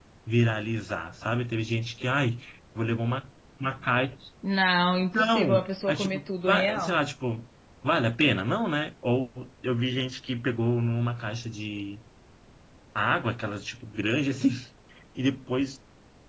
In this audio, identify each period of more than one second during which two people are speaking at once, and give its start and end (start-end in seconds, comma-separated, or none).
5.1-7.0